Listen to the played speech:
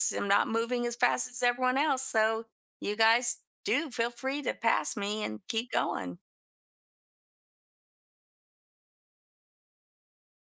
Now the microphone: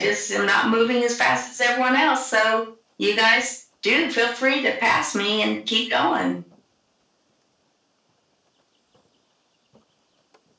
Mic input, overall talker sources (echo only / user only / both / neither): echo only